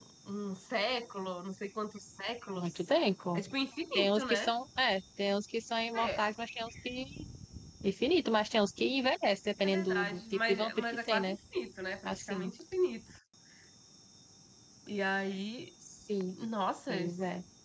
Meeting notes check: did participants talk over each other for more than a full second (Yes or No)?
Yes